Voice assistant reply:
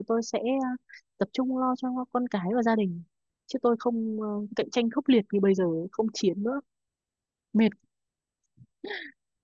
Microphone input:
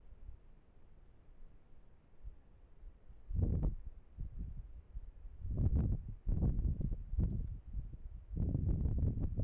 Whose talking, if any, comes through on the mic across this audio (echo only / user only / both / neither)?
neither